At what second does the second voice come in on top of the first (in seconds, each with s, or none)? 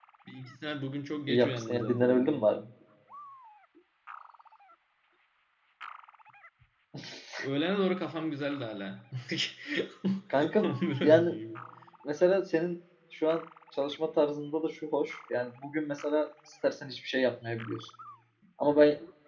1.3 s